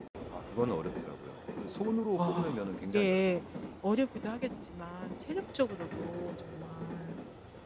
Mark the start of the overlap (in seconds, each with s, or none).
2.2 s